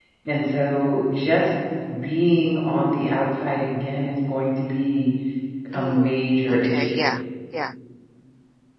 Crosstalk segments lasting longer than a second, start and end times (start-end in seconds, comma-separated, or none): 5.7-7.2